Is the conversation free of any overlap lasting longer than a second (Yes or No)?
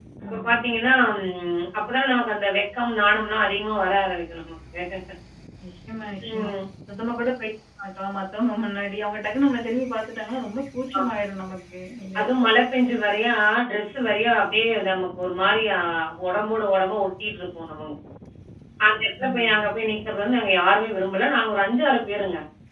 Yes